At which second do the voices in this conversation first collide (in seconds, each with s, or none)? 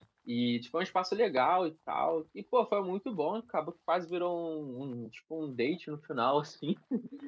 none